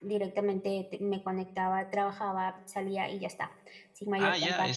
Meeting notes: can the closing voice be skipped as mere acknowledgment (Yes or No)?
No